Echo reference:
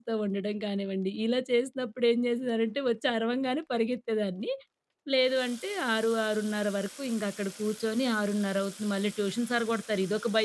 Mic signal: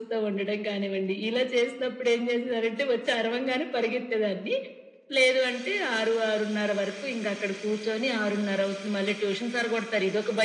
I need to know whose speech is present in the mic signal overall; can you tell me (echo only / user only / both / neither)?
echo only